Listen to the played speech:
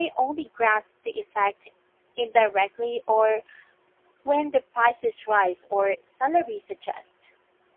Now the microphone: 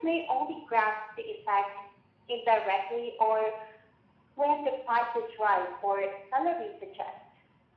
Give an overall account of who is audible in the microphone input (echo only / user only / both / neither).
echo only